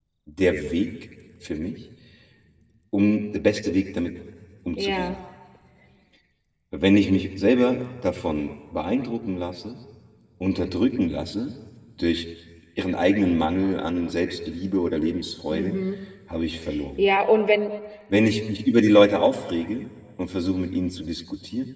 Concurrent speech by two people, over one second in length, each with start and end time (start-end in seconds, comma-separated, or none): none